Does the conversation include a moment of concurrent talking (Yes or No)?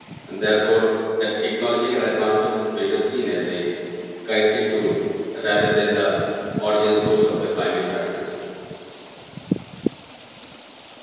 No